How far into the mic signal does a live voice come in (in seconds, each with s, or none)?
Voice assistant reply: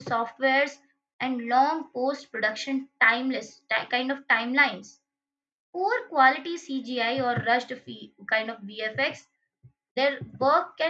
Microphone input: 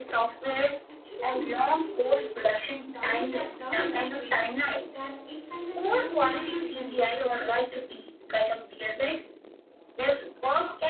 0.9 s